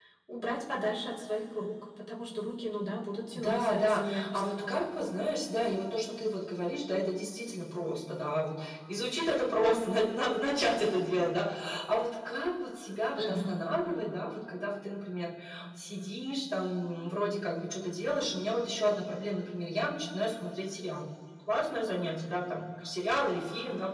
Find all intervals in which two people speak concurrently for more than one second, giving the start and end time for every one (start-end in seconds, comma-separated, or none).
3.3-4.8